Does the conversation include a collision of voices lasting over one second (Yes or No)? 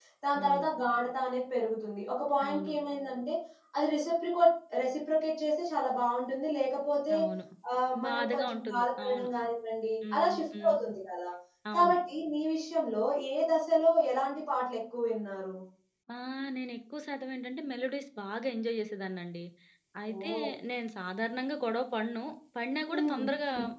Yes